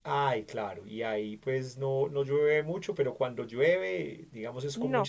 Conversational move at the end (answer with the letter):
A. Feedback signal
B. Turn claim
B